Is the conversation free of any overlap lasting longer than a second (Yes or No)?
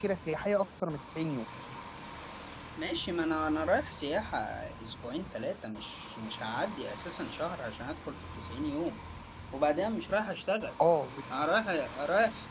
Yes